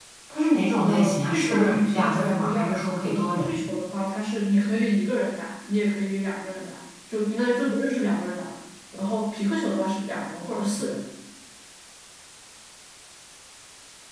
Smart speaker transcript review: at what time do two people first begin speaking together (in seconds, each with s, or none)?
0.8 s